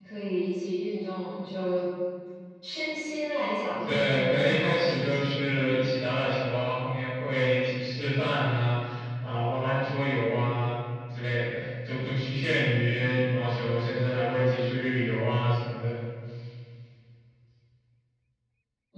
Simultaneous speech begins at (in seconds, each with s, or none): 3.9 s